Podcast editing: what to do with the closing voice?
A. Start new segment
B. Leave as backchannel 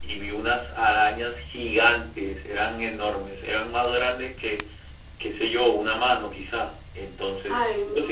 A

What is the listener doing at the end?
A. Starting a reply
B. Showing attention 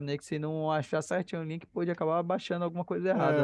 A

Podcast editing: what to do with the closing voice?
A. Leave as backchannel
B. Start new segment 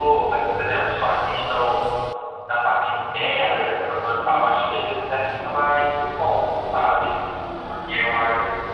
A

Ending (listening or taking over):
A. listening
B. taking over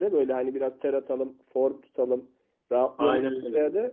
A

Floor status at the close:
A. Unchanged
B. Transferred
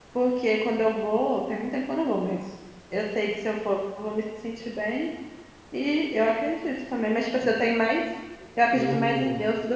A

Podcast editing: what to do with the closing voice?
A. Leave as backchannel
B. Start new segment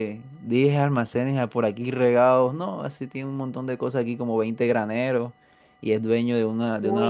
A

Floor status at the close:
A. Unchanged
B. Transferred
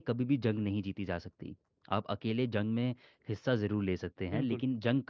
A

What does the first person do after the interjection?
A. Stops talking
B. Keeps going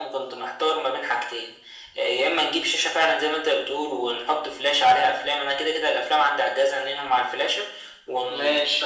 B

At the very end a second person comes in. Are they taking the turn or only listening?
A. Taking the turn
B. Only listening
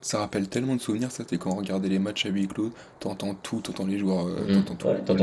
A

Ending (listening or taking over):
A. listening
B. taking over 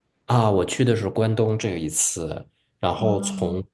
A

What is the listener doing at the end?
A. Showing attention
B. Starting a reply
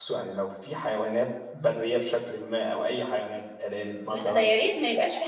B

